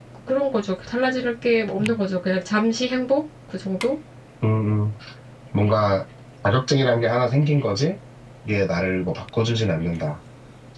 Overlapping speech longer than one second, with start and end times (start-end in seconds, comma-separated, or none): none